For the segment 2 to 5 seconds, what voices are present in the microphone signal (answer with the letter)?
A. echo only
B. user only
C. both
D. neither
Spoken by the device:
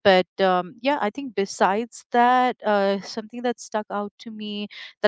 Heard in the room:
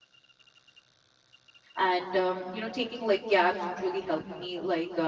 B